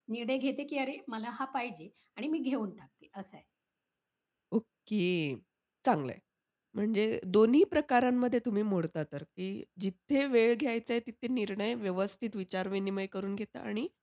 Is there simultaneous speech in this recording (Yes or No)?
No